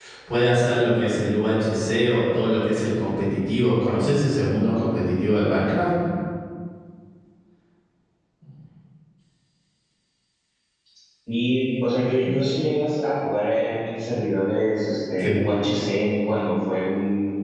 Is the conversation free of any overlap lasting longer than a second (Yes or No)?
Yes